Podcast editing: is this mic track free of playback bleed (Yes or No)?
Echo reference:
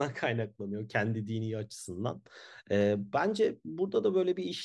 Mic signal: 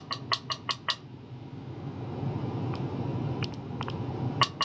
Yes